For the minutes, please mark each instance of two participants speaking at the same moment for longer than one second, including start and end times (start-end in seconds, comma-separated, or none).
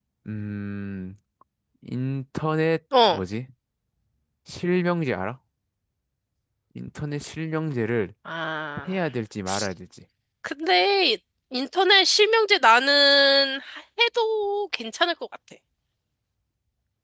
none